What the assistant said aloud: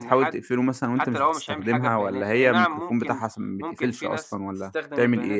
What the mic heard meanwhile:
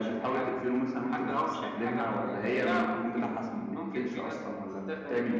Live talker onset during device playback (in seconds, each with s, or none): none